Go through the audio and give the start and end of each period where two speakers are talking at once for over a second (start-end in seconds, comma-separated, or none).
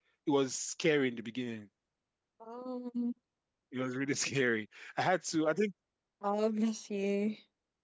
none